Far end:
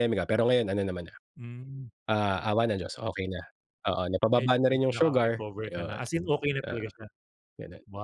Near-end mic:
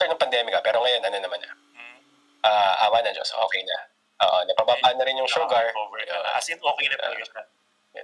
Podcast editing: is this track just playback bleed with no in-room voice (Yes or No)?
Yes